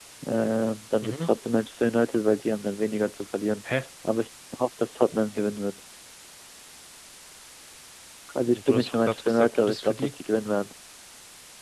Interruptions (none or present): present